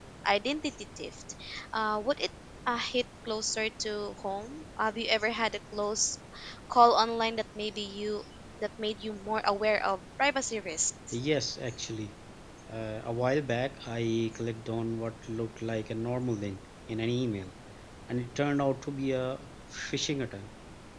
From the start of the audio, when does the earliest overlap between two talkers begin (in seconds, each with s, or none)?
none